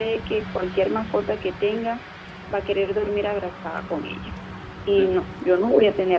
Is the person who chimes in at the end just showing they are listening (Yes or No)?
Yes